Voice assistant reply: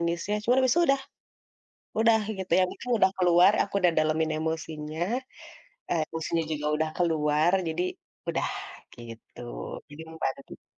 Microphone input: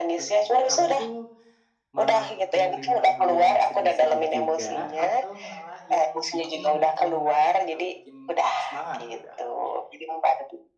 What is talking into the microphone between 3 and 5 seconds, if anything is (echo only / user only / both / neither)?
both